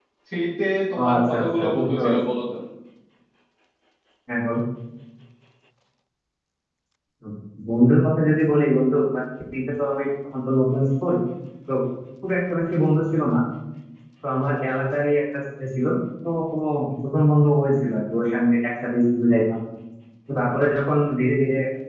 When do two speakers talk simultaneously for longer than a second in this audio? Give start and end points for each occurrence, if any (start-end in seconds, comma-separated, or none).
1.0-2.3